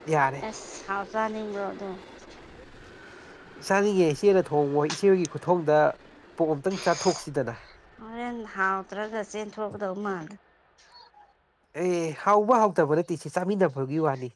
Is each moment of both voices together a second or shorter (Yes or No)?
Yes